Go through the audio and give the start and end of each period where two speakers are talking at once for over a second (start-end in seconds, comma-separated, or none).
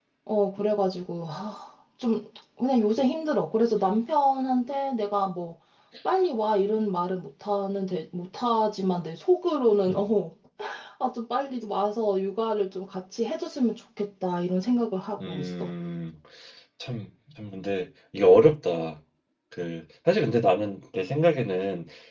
none